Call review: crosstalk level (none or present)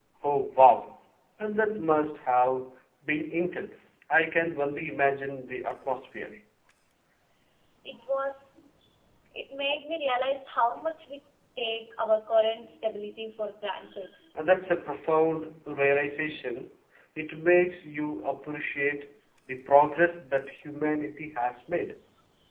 none